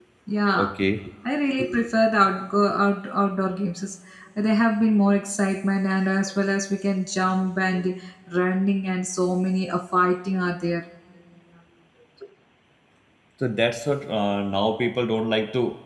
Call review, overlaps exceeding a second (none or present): none